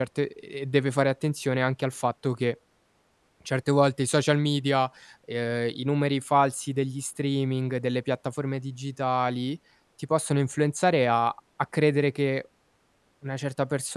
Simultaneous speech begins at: none

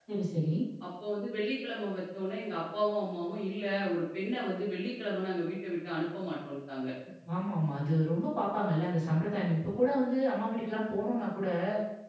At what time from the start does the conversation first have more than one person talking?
none

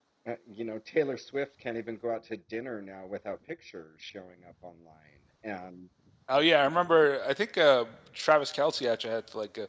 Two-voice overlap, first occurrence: none

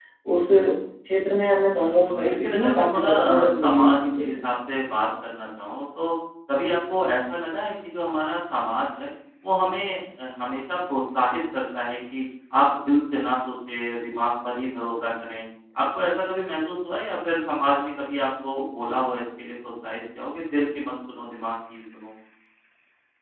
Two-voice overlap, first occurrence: 1.7 s

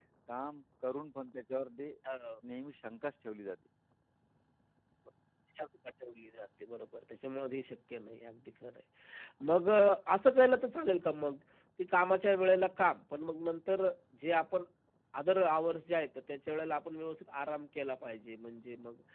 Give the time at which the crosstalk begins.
none

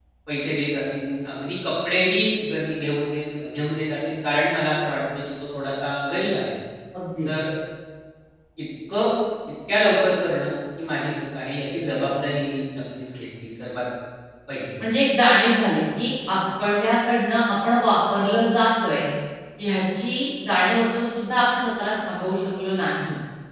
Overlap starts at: none

